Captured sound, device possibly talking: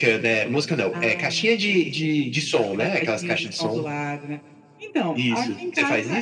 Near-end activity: none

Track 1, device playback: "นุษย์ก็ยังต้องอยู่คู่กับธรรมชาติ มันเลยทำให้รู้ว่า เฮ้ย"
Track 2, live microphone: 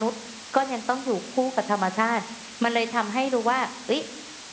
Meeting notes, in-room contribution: none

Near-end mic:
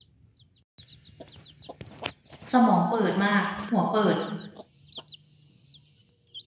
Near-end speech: present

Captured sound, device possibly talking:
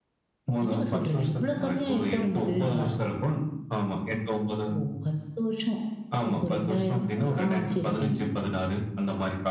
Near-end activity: present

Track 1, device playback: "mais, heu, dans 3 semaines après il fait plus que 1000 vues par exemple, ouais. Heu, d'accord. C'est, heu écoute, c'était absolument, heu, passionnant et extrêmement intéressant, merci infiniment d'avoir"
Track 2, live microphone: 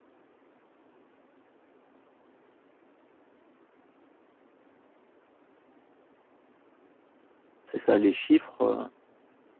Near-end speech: present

